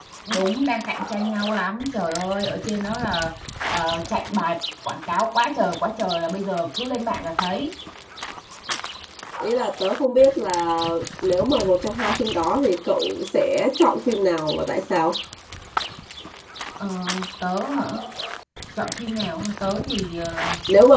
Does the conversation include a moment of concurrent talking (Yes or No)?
No